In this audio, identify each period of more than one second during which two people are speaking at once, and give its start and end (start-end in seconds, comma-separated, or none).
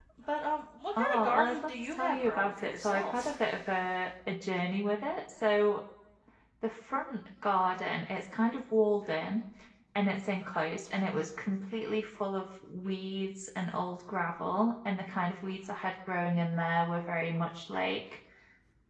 1.0-3.4